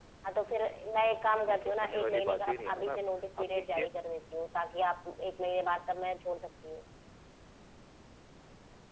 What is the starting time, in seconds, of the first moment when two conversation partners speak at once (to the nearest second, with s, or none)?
1 s